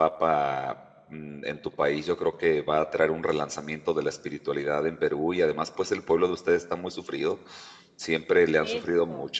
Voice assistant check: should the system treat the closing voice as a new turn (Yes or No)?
No